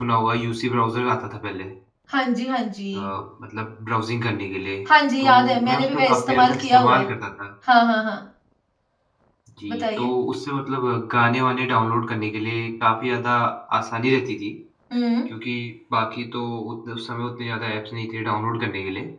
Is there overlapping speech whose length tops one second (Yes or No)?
Yes